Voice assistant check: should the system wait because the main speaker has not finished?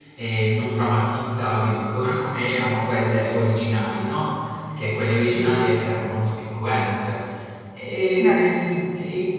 Yes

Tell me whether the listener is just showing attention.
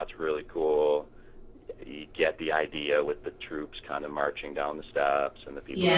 No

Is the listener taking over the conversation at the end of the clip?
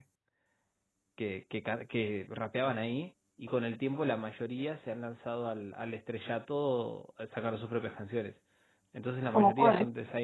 No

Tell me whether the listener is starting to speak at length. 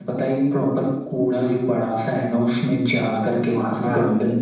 No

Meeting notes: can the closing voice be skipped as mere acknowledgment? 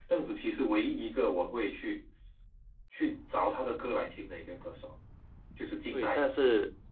No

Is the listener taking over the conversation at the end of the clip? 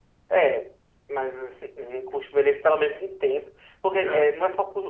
No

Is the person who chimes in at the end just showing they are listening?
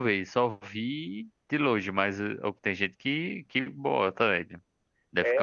No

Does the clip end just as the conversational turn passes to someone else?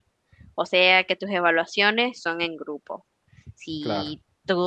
No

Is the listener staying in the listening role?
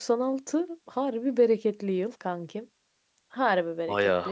Yes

